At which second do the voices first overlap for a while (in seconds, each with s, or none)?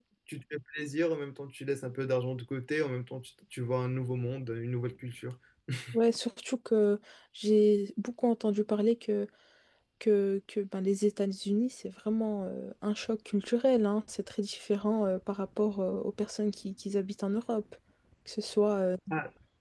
none